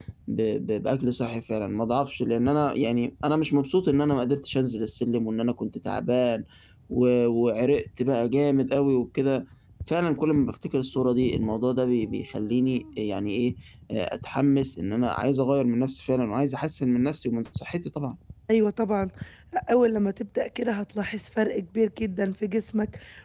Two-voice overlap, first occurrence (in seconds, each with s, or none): none